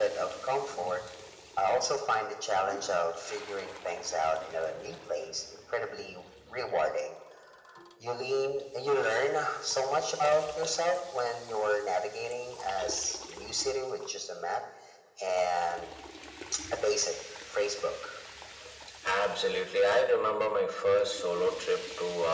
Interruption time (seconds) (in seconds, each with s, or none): none